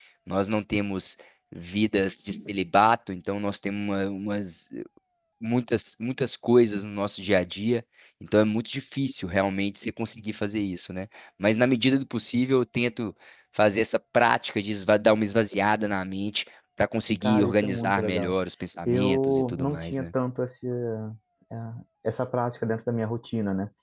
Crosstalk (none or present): present